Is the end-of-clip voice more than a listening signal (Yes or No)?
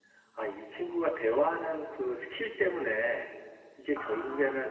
No